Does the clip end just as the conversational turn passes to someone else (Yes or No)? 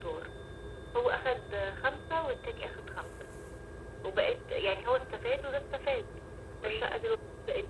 No